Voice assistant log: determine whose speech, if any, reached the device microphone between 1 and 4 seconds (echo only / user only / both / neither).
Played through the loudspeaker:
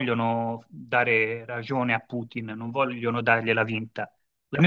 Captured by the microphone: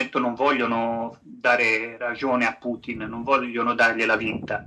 echo only